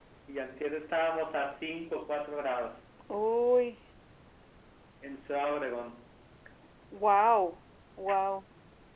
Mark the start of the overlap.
none

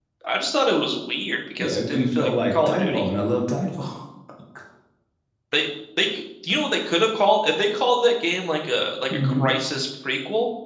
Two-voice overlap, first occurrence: 1.6 s

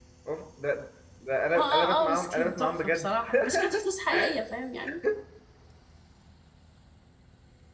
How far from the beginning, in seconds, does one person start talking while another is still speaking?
1.6 s

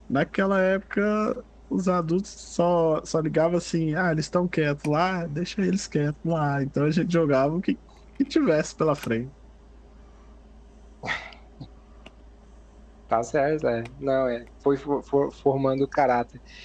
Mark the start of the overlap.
none

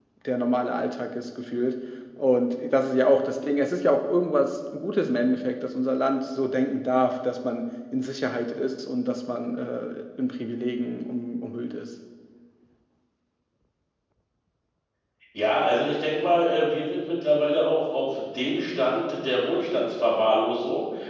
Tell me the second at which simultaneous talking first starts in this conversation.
none

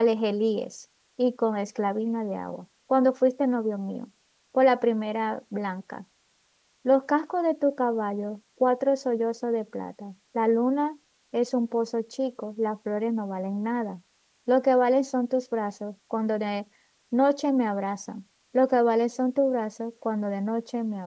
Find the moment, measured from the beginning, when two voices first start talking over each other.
none

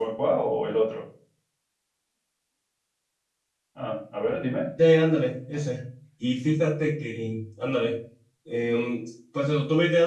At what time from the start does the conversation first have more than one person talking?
none

